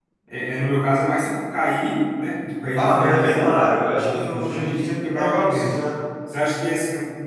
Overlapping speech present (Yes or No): Yes